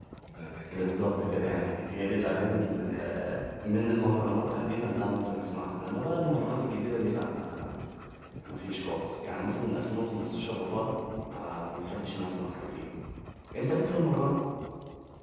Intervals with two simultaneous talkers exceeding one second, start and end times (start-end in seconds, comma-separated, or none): 0.7-3.2